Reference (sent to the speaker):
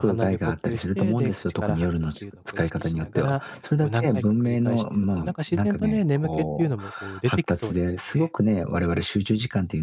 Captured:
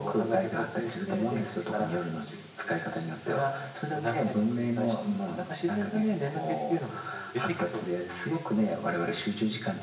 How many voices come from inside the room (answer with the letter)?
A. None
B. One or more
A